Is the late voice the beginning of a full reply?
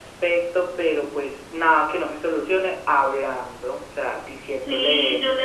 Yes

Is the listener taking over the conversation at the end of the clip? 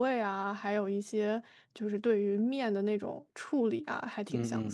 Yes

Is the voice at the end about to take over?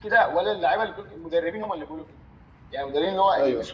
No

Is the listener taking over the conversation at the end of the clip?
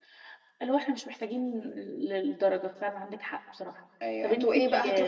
Yes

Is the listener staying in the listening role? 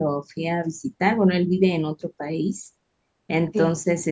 Yes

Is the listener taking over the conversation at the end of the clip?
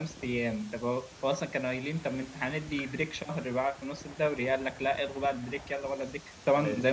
No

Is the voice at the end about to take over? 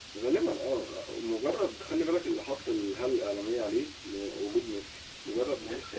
No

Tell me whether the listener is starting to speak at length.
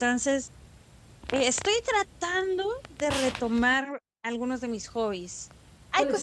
No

